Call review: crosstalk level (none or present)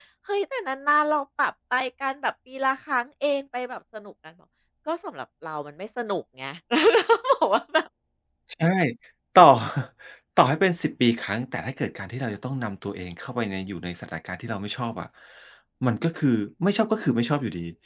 none